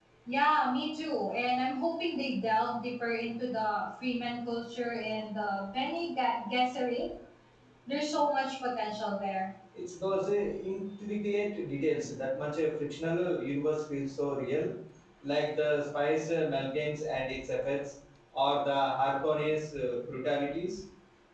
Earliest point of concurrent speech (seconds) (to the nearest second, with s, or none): none